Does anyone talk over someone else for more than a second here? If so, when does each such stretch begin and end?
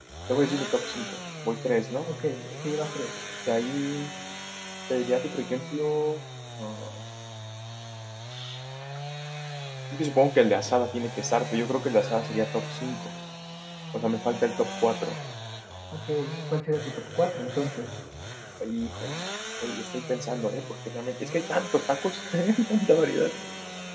none

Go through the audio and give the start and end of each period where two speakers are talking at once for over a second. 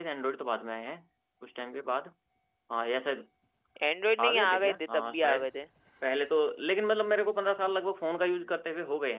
4.2-5.5

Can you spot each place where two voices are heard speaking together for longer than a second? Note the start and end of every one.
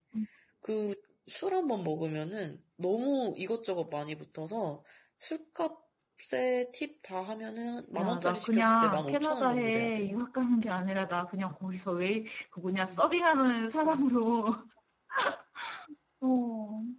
8.0-10.1

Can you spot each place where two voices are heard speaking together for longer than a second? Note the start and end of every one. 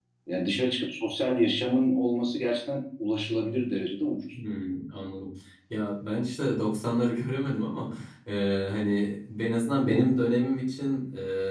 none

